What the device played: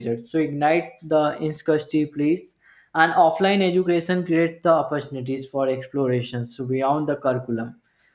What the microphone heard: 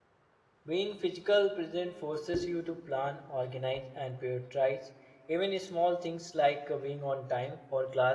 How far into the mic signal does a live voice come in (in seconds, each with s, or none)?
0.7 s